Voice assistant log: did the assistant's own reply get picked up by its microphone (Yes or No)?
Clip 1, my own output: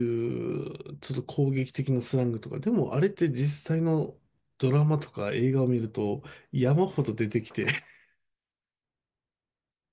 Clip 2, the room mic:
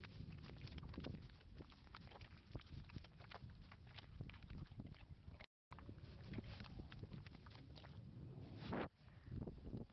No